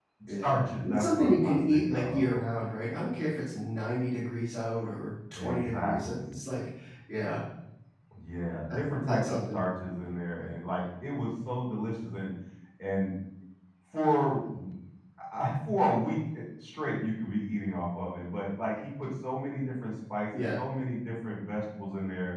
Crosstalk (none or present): present